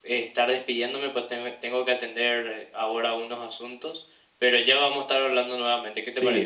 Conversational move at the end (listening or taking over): taking over